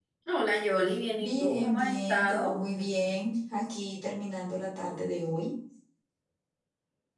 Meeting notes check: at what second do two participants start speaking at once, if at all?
1.2 s

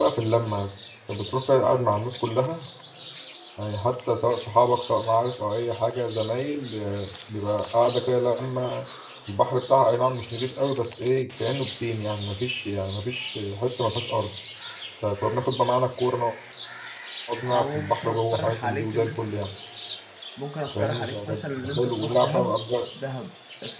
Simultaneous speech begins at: 17.4 s

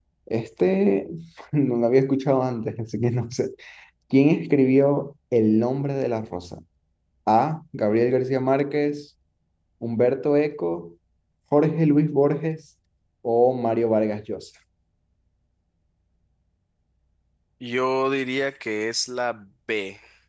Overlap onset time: none

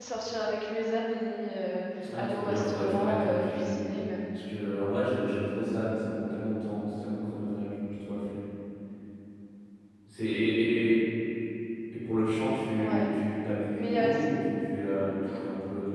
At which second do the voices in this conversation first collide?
2.1 s

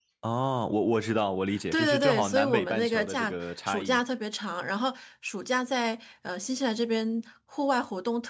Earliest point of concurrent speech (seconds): 1.7 s

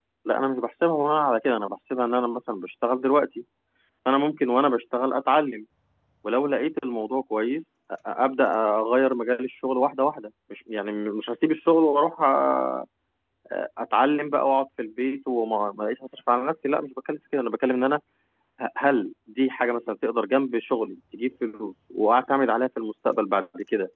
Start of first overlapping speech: none

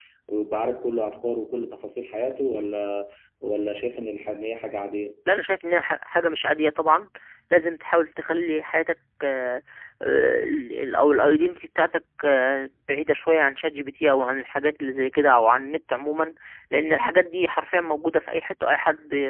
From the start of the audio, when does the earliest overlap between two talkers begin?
none

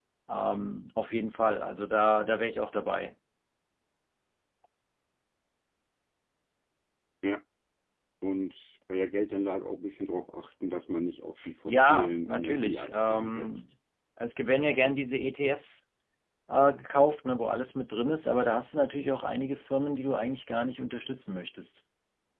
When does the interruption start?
11.4 s

